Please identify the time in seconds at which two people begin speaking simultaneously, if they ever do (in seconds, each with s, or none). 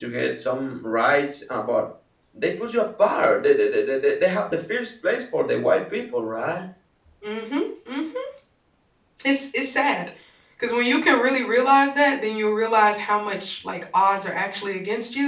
none